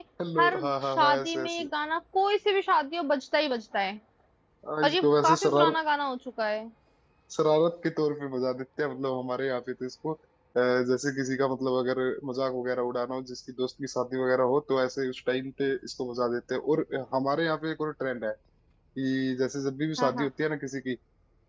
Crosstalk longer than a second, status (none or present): present